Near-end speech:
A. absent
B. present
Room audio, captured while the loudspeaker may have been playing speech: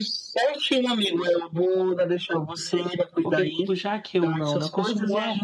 B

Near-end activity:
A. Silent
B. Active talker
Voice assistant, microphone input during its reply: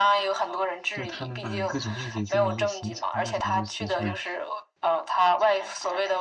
B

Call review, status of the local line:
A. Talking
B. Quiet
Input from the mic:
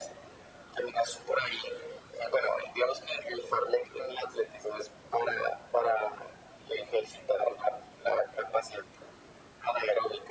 B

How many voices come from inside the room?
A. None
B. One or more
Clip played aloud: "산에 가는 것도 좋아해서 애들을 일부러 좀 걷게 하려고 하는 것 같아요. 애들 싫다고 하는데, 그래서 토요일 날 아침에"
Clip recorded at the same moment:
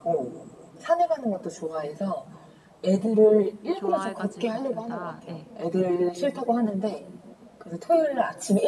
B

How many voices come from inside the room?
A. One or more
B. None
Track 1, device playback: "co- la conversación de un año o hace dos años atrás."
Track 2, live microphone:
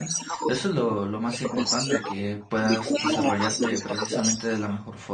A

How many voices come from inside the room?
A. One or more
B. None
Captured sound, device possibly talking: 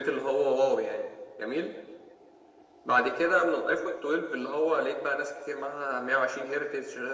B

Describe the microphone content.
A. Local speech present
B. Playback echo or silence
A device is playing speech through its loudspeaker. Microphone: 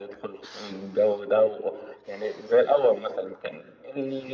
B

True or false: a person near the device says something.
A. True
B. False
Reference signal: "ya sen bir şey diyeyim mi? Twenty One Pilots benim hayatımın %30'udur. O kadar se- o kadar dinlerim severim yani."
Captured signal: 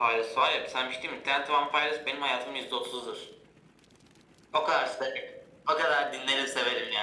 B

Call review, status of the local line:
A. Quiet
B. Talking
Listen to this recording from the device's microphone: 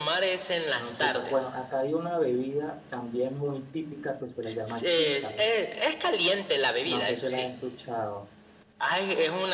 B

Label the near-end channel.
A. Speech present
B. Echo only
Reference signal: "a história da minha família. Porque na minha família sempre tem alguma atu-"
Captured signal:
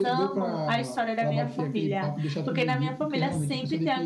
A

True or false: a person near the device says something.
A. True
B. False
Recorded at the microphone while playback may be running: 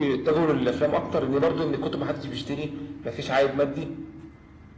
B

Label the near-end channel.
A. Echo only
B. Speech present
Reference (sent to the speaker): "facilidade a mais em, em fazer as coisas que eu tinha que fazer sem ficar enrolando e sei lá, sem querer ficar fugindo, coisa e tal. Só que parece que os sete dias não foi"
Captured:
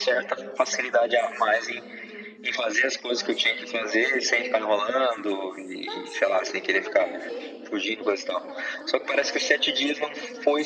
B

